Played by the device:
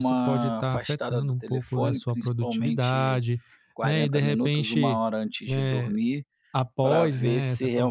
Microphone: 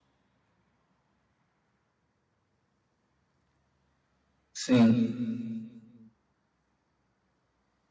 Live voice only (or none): Sim.